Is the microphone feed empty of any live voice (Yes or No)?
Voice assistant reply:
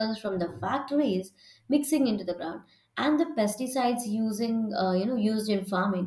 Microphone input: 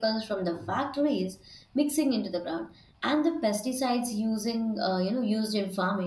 Yes